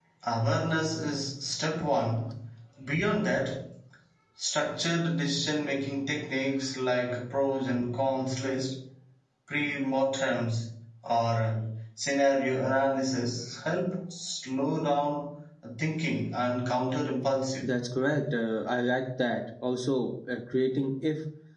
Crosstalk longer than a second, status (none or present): none